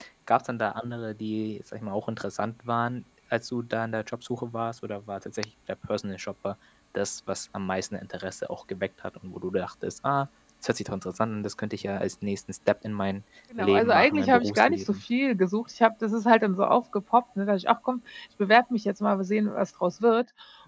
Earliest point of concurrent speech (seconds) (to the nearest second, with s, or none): 14 s